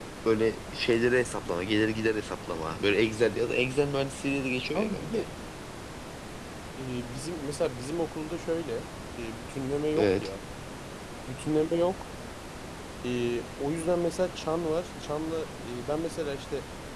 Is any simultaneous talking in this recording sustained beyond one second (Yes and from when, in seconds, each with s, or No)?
No